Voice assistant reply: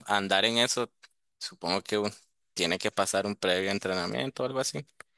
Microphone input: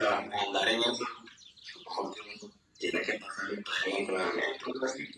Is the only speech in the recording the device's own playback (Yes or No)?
Yes